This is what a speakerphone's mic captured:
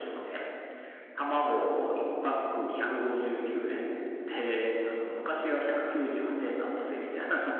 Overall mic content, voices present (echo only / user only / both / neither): echo only